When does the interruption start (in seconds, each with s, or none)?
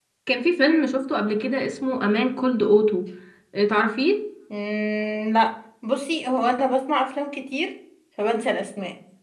none